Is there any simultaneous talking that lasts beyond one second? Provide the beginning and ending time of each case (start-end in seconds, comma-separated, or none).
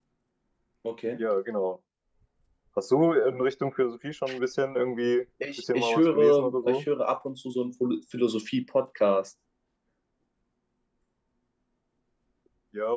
5.6-6.8